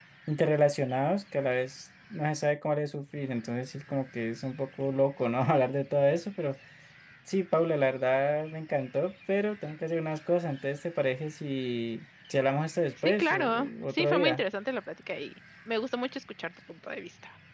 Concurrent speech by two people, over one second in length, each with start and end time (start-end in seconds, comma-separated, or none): 13.1-14.4